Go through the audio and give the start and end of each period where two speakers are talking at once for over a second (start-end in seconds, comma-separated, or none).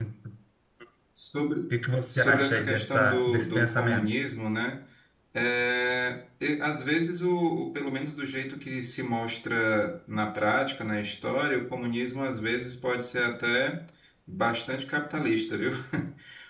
2.1-4.1